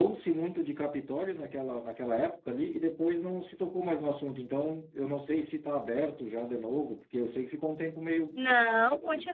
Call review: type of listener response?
taking over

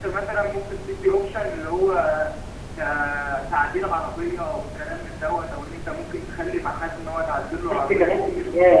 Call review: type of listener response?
taking over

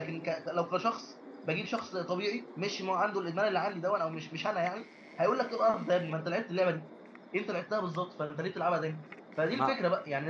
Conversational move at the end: listening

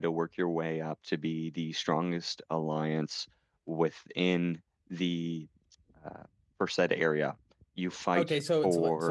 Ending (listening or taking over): taking over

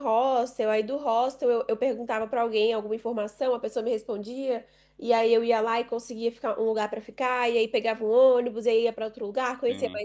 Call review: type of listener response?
listening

